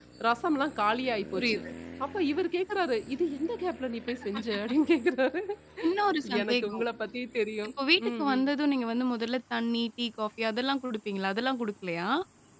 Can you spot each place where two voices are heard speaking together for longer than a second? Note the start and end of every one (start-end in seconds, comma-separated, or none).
none